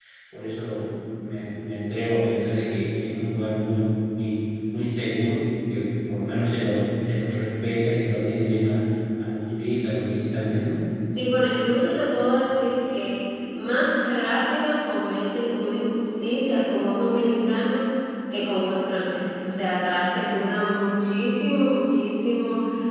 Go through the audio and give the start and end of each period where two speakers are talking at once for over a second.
none

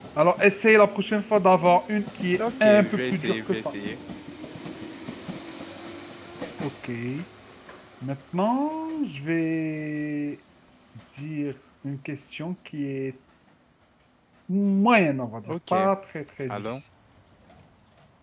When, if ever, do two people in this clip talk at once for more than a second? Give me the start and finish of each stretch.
2.4-3.7

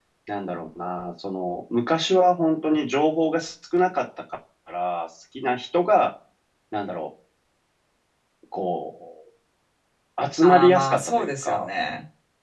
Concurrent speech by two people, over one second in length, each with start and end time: 10.4-11.7

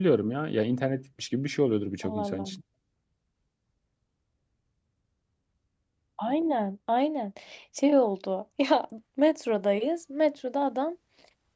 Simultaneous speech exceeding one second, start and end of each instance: none

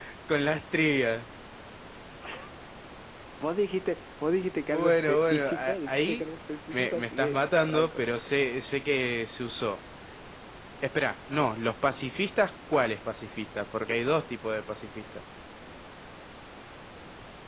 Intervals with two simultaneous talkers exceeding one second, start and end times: 4.7-6.3, 6.7-8.0

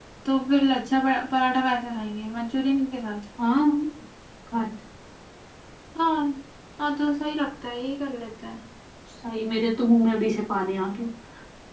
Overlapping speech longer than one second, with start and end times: none

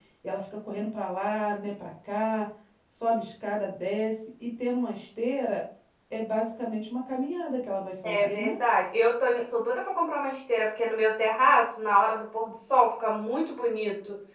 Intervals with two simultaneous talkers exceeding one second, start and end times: none

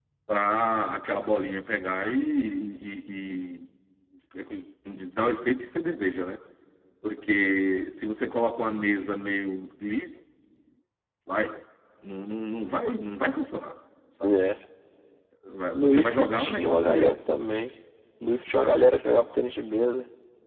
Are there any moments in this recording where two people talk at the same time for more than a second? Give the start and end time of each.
15.8-17.1

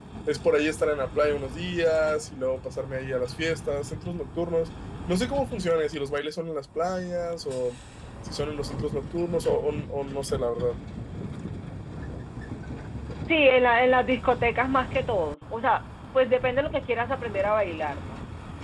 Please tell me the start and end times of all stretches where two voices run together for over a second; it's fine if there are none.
none

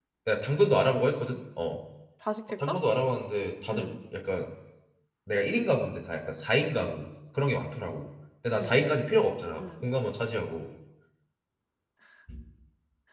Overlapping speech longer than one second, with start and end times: none

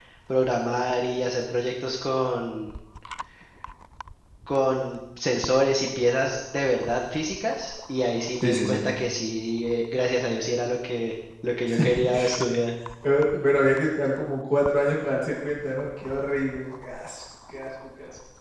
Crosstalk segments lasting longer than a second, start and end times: none

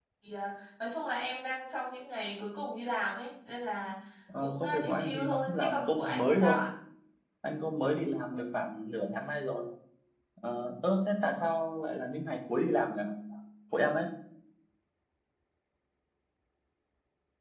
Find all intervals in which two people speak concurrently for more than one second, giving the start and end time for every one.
4.4-6.6

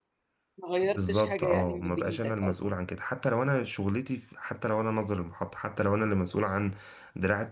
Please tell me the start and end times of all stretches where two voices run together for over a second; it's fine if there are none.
0.8-2.6

